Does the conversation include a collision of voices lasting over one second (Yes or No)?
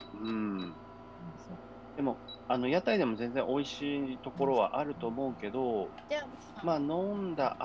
No